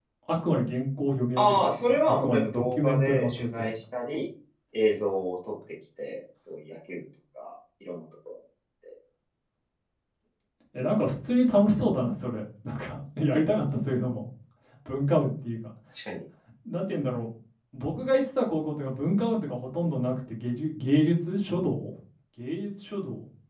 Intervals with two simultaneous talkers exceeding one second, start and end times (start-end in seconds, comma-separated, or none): 1.4-3.7